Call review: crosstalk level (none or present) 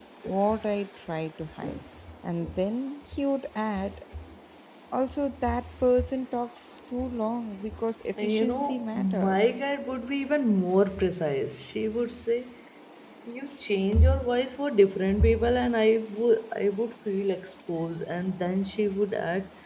present